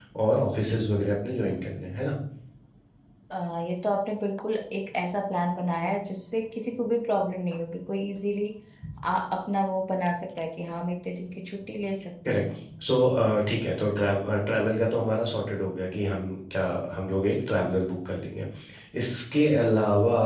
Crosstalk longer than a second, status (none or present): none